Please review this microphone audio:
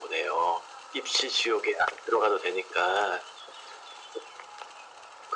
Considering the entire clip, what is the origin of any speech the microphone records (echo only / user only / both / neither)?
echo only